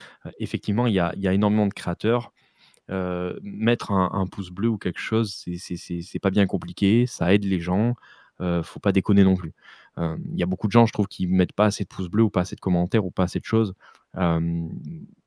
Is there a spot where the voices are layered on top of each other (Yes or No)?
No